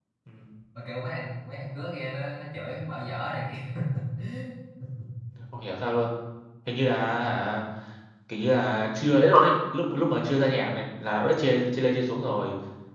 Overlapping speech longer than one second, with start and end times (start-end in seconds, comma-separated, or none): none